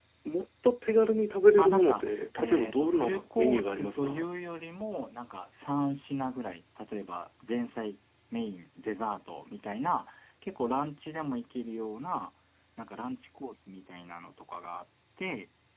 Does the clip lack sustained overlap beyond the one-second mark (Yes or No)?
No